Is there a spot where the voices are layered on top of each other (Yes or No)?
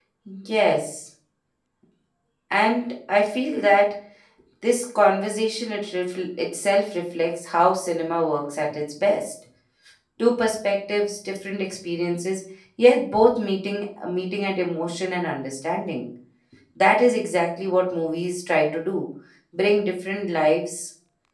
No